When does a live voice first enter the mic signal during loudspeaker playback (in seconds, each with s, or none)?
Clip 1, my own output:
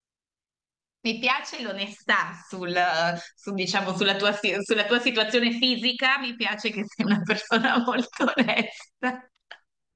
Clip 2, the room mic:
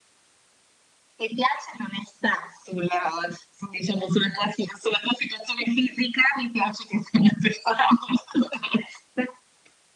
none